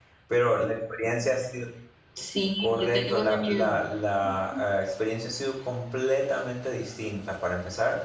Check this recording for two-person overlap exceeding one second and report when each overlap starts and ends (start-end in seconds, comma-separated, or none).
2.6-3.8